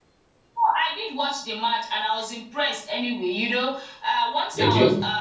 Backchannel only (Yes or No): Yes